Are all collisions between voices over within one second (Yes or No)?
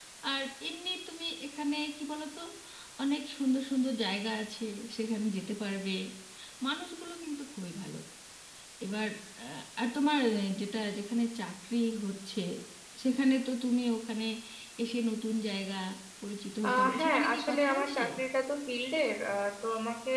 No